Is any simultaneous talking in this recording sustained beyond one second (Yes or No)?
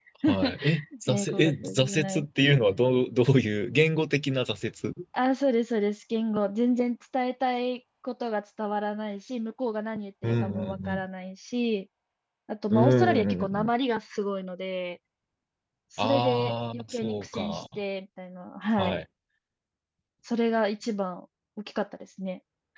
Yes